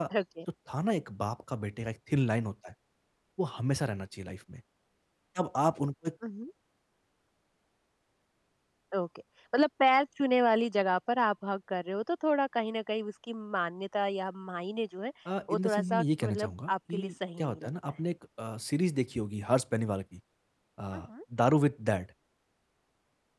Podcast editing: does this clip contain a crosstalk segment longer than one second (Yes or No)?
Yes